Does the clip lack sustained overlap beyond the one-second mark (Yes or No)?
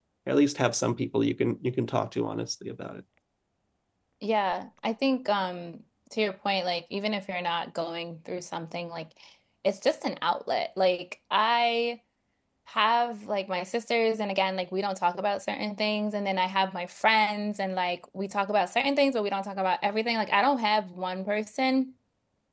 Yes